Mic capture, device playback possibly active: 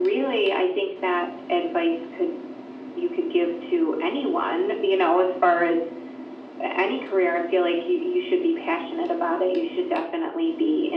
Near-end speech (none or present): none